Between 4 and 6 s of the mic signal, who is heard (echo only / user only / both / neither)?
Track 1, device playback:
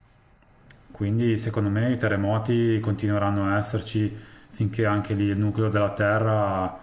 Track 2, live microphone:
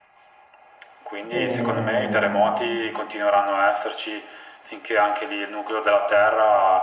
echo only